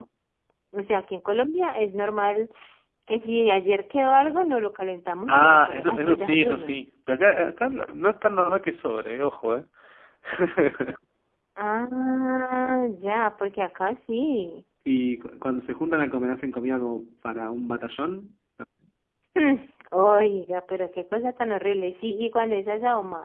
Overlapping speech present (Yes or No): Yes